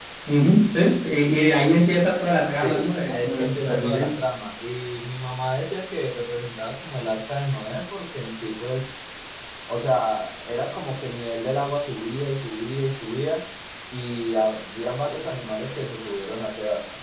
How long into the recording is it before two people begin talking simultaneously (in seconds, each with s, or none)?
2.5 s